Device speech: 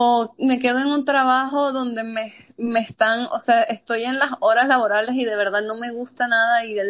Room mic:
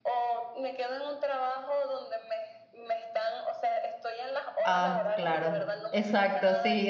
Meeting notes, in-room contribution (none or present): present